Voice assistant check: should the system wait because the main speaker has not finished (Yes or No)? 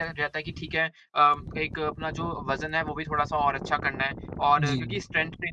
Yes